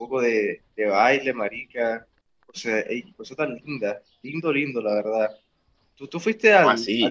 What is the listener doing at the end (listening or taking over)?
listening